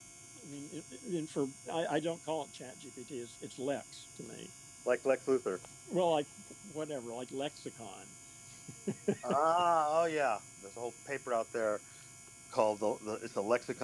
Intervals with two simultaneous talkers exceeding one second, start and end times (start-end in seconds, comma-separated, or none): none